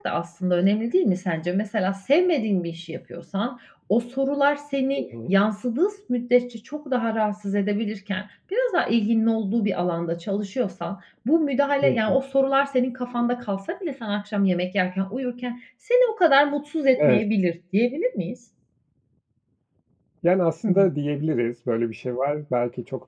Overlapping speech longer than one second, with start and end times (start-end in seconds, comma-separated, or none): none